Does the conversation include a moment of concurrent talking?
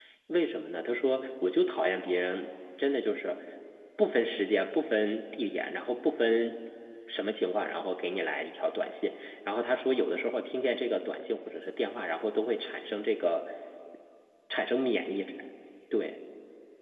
No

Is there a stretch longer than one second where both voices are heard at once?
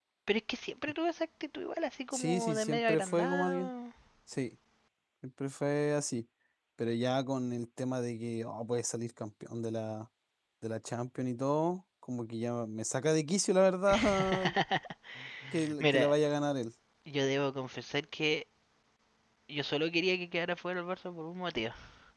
Yes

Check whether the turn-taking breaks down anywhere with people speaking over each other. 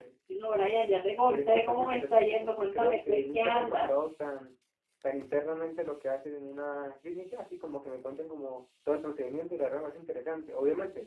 Yes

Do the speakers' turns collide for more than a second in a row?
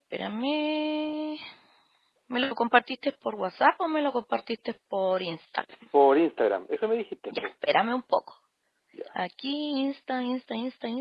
No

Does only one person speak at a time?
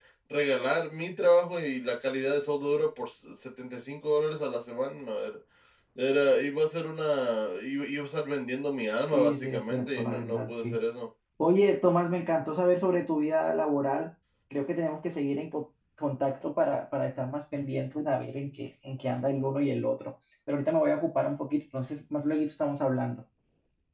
No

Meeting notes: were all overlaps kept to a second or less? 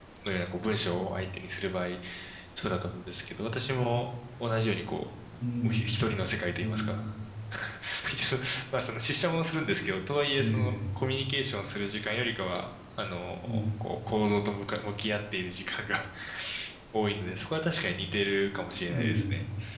Yes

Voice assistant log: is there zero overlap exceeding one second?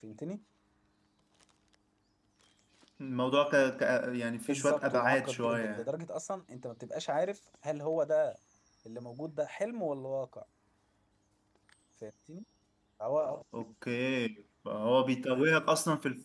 No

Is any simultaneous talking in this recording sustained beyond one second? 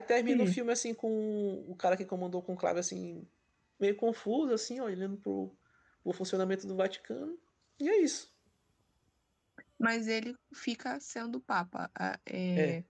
No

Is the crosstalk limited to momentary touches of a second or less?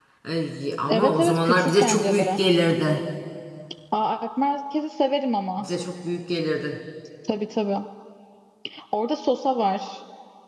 No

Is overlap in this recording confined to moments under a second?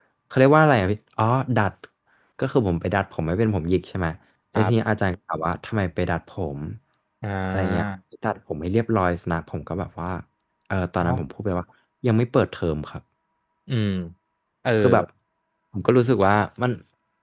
Yes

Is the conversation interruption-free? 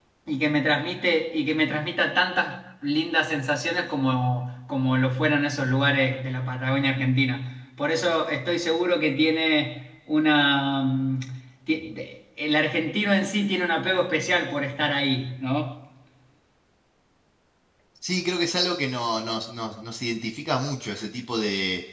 Yes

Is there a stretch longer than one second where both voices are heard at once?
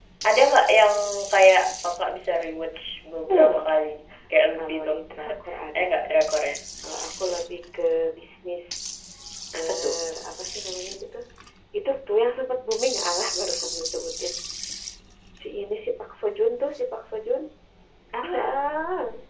No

